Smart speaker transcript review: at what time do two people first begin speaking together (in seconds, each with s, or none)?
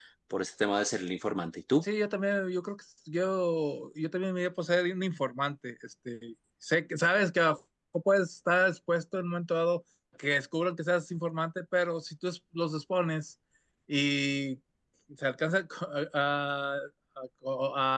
none